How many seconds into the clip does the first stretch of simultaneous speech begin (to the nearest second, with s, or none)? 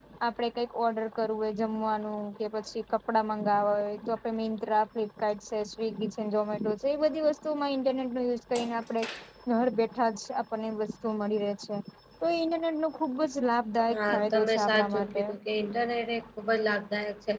14 s